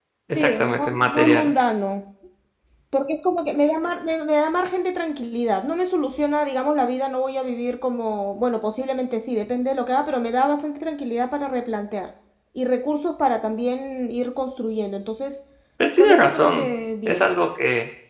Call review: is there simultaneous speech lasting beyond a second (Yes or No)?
Yes